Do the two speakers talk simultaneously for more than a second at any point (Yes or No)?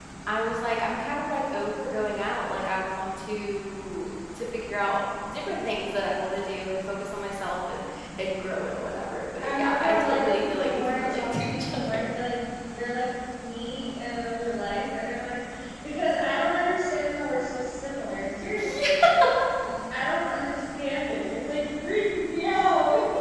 Yes